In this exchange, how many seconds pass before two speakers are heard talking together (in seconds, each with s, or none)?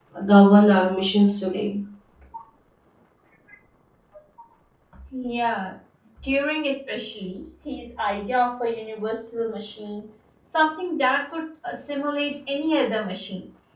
none